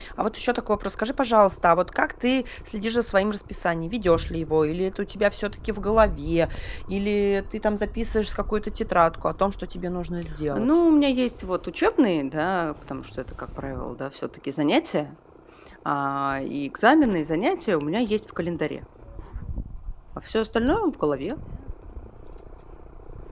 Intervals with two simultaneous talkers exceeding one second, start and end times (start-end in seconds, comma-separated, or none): none